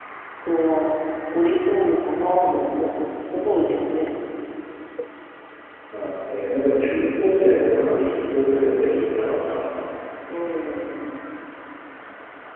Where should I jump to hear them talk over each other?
none

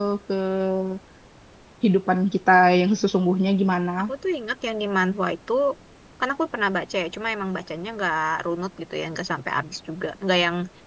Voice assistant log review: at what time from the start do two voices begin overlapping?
none

